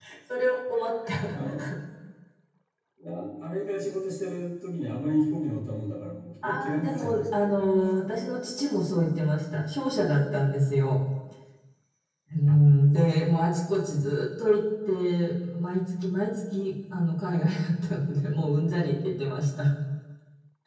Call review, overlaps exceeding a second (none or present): present